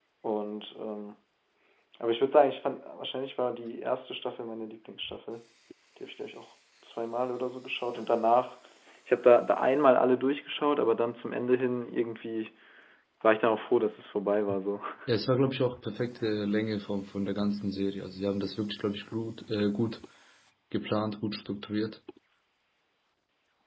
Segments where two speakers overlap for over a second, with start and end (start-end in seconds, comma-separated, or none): none